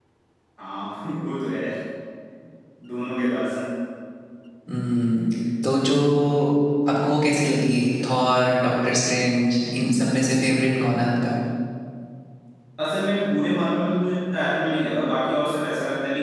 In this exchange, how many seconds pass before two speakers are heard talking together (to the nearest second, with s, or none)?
none